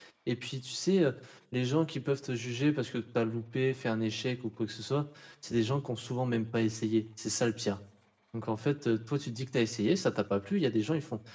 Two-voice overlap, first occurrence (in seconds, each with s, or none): none